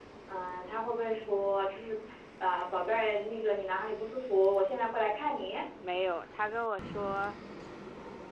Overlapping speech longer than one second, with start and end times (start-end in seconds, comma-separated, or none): none